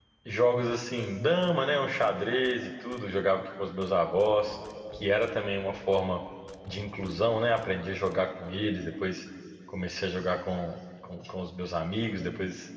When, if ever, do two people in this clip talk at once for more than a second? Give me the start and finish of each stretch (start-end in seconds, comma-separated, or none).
none